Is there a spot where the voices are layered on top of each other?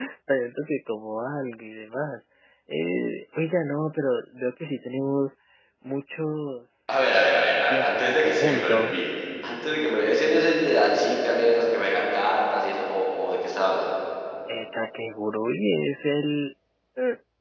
Yes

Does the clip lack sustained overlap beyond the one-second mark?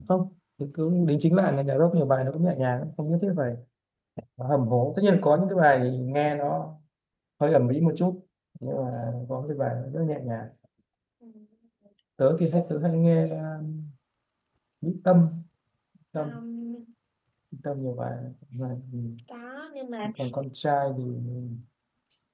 Yes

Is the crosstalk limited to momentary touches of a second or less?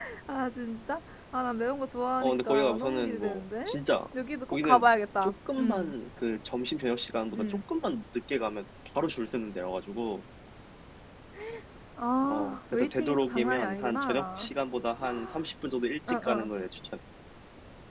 No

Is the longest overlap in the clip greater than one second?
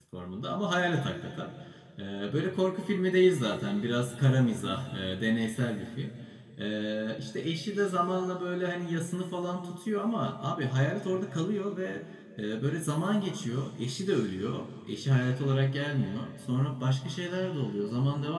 No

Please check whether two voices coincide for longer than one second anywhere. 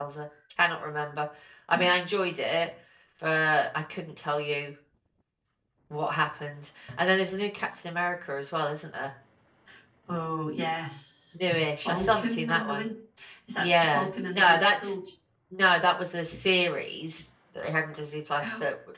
Yes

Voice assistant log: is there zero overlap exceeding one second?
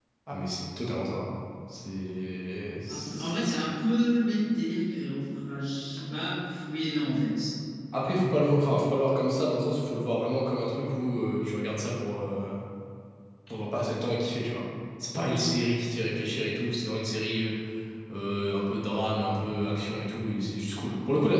Yes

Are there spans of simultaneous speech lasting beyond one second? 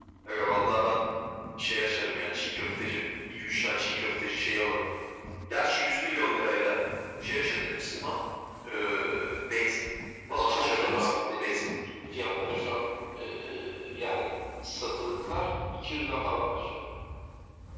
Yes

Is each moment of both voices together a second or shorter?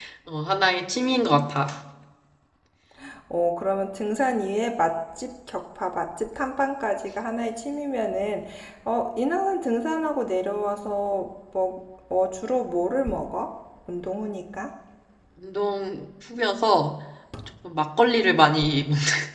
Yes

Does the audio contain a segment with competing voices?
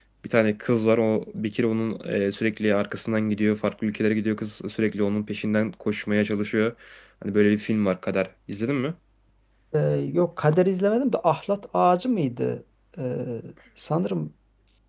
No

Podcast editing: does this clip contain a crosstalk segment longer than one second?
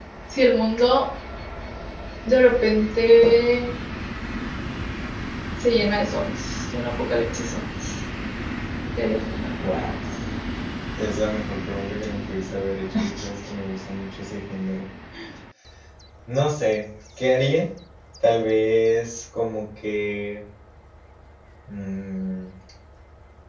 No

